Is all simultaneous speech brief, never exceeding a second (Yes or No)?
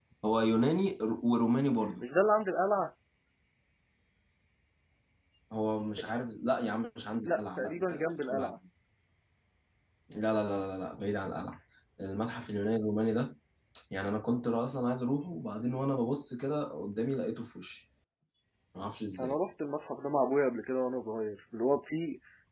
No